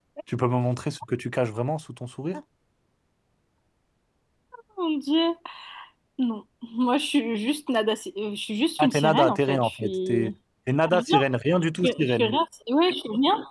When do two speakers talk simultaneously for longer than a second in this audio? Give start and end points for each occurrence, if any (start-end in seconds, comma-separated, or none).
8.8-10.2